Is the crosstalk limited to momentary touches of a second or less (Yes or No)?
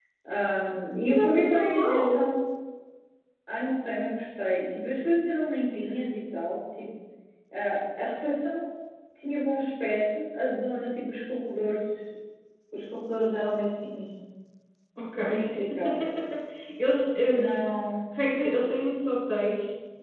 No